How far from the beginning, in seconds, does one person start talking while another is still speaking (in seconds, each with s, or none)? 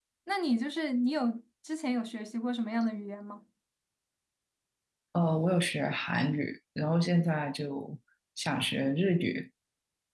none